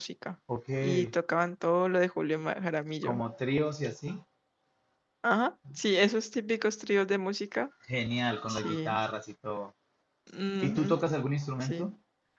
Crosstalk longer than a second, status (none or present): none